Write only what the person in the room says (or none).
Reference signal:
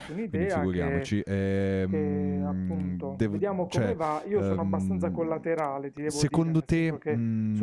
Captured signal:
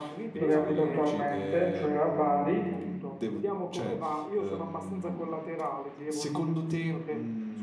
dove abito attualmente, cioè a Bari,